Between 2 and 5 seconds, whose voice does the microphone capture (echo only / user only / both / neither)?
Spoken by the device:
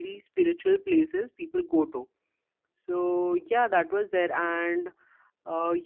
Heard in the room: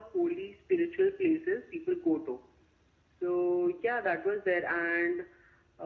echo only